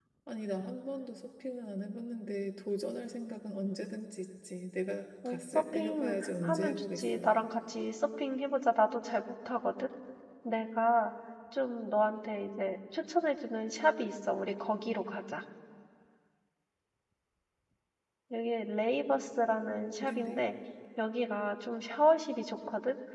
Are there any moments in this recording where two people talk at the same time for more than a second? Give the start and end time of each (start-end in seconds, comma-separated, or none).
5.2-7.3